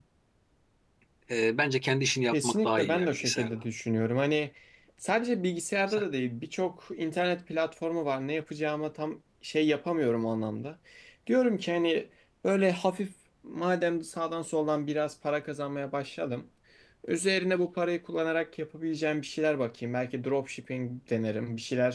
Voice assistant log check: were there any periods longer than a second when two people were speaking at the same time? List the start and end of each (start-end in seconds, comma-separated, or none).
2.3-3.5